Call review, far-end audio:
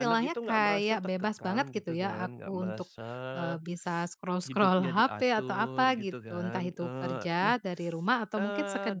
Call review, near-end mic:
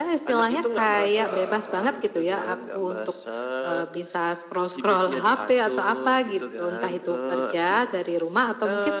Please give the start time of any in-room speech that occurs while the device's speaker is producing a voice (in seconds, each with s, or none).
1.1 s